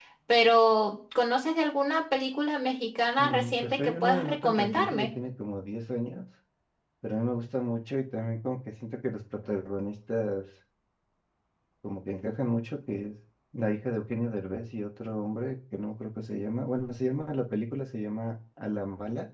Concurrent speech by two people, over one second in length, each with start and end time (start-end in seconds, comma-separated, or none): 3.2-5.1